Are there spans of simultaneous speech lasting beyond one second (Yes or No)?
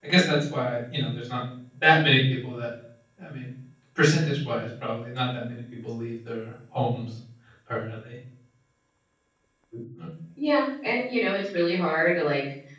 No